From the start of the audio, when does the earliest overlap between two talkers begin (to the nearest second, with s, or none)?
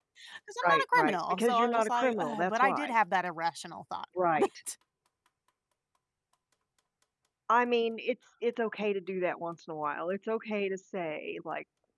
1 s